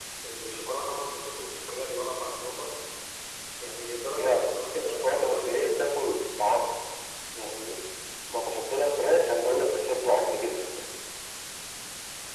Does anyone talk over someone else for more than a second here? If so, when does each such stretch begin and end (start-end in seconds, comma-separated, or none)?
4.2-5.8